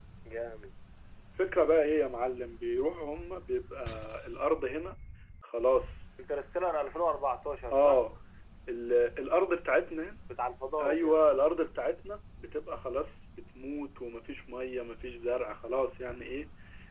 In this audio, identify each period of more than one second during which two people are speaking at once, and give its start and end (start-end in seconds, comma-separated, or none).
none